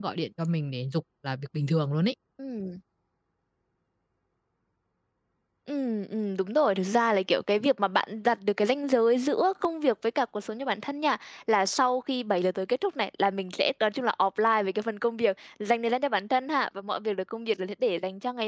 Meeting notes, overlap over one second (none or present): none